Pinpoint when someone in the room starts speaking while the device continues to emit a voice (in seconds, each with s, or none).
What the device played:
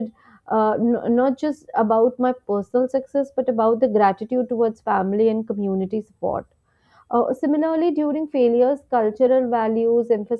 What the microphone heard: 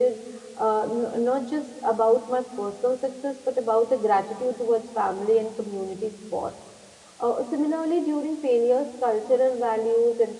none